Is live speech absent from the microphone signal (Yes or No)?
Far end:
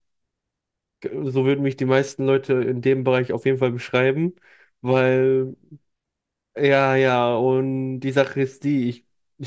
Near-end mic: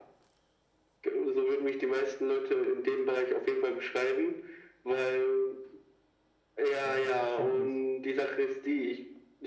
No